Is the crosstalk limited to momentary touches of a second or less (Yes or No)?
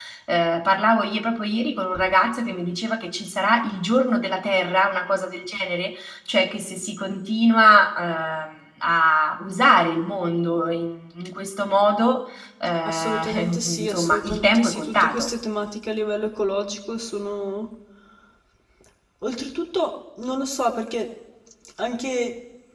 No